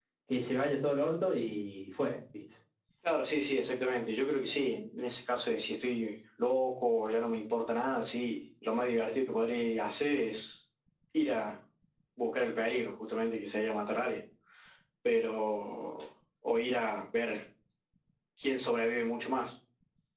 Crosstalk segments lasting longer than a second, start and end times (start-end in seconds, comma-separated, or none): none